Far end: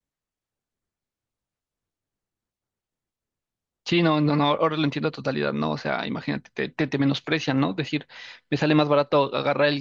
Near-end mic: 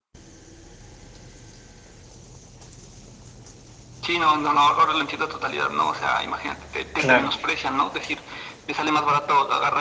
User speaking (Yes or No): Yes